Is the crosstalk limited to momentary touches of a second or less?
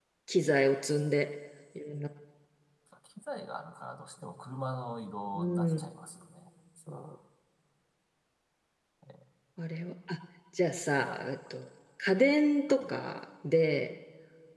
Yes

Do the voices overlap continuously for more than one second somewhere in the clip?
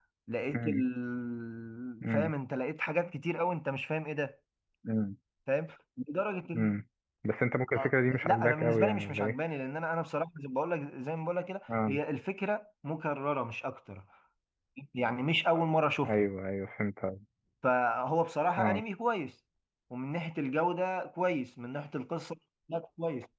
Yes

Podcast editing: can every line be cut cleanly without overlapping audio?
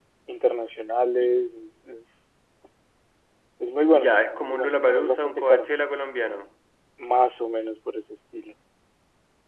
No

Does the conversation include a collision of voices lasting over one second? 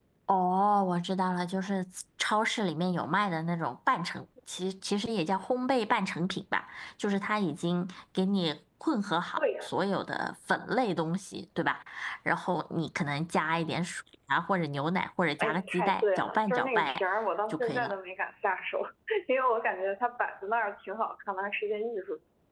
Yes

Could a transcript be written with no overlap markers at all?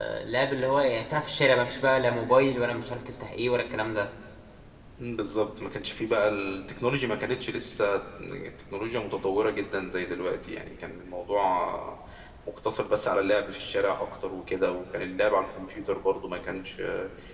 Yes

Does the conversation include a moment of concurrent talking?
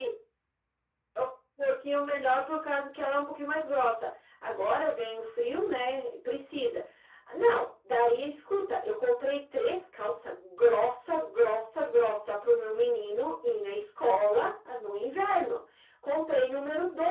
No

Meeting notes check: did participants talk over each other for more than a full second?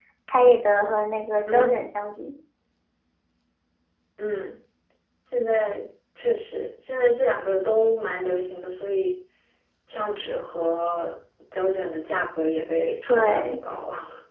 No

